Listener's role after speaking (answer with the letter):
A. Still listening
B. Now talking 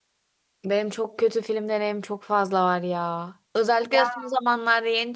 A